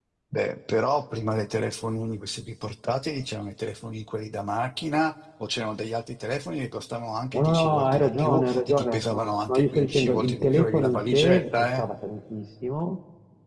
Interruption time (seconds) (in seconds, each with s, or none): 7.3 s